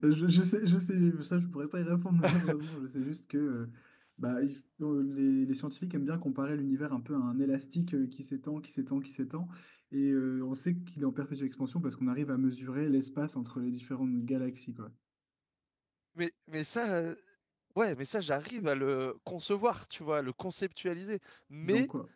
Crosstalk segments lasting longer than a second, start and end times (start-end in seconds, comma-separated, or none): none